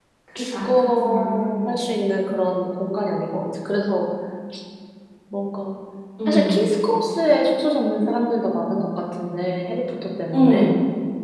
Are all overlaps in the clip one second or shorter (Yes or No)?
No